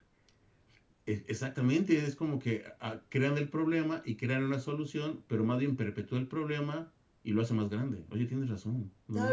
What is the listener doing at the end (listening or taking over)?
taking over